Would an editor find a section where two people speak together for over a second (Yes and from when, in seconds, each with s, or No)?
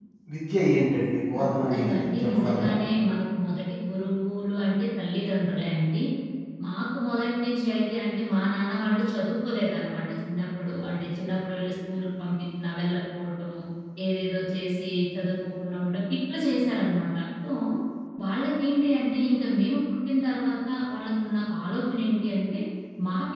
Yes, from 1.4 s